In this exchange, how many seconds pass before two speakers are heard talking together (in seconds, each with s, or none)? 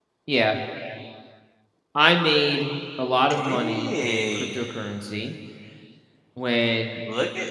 3.3 s